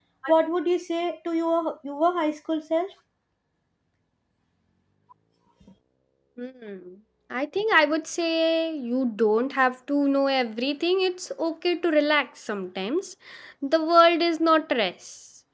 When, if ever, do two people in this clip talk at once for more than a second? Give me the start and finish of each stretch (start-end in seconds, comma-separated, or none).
none